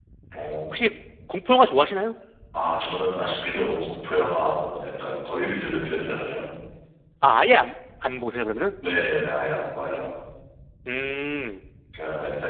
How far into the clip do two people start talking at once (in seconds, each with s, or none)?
none